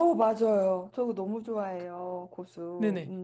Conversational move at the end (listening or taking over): taking over